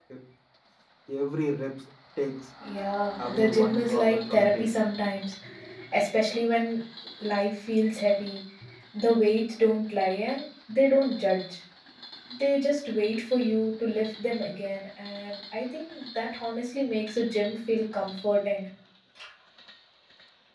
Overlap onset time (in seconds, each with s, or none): 3.2 s